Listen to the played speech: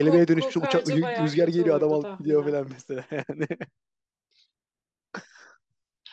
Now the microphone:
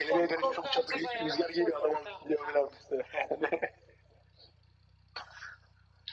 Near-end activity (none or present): none